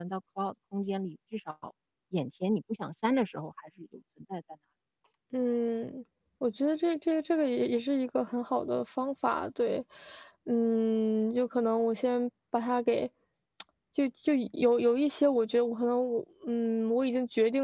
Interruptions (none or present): none